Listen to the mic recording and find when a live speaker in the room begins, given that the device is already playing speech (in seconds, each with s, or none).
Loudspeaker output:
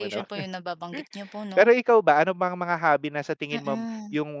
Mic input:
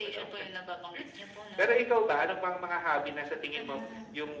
none